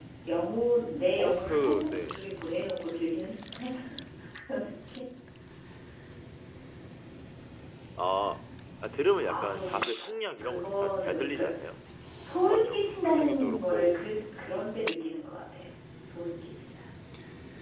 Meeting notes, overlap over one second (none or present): present